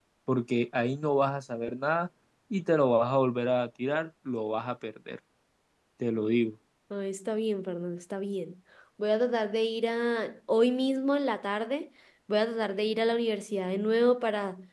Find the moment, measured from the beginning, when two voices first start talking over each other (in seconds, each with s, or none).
none